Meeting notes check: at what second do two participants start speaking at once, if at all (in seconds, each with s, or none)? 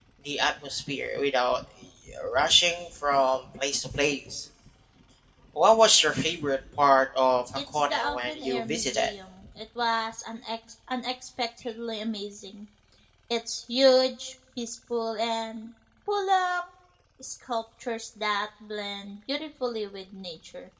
7.5 s